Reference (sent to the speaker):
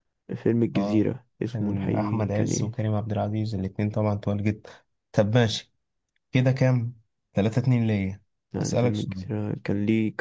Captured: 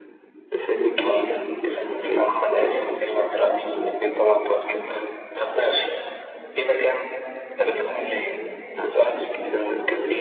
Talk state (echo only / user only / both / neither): echo only